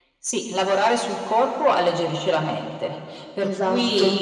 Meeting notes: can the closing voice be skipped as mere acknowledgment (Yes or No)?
Yes